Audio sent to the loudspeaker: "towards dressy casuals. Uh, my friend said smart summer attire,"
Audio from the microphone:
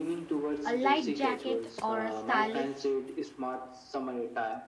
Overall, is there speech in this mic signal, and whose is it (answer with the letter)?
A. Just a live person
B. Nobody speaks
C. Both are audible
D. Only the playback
C